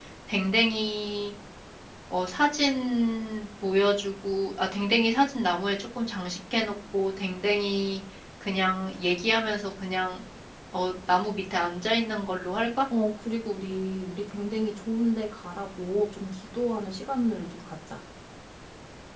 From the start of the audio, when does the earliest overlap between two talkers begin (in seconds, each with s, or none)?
none